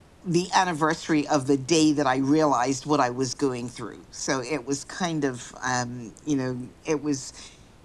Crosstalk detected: No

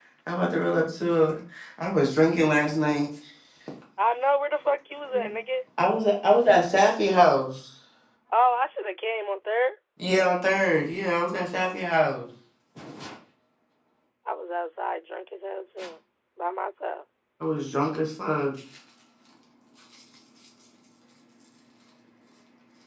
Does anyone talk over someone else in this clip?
No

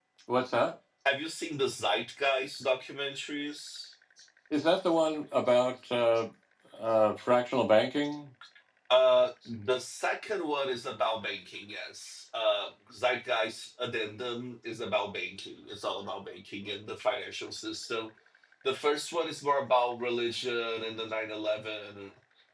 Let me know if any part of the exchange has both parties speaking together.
No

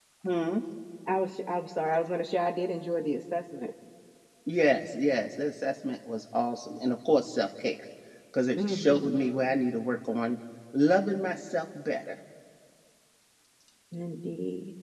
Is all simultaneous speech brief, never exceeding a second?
Yes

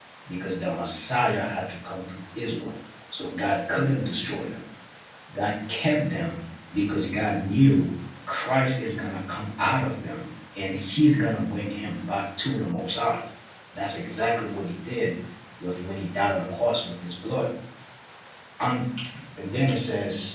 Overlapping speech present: No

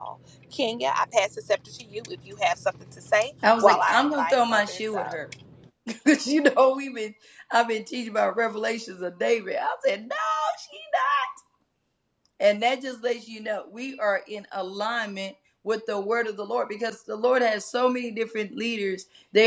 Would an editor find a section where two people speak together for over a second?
Yes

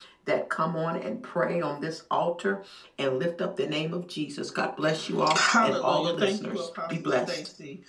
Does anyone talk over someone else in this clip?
Yes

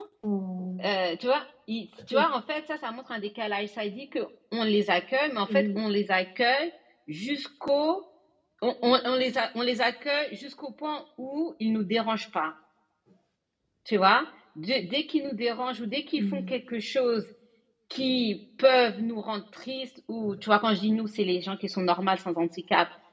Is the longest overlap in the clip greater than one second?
No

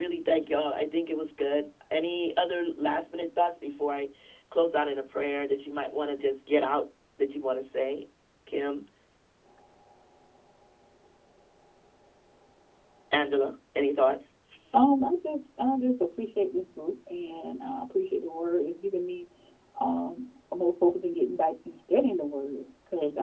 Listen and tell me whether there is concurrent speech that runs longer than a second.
No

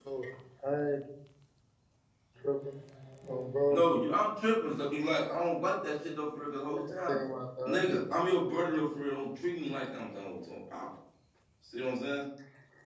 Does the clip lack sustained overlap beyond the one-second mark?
Yes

